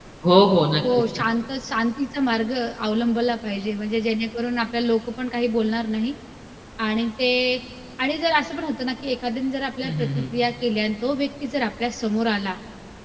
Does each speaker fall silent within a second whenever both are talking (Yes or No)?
Yes